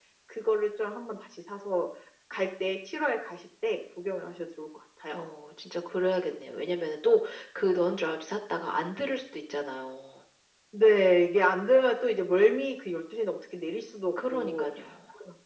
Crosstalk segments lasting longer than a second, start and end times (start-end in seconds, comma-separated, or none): none